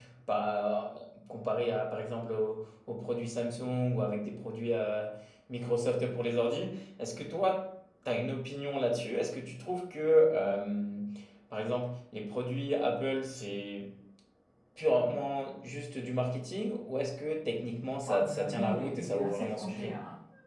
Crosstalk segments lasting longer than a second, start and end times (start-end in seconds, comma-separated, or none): 18.0-19.9